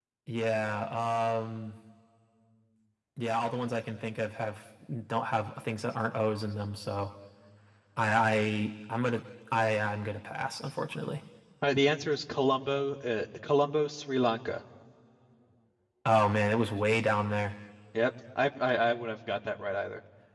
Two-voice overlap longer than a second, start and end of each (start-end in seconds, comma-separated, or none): none